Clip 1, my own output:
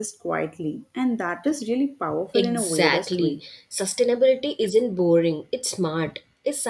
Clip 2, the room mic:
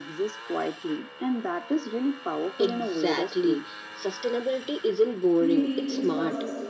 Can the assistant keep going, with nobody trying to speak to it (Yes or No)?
No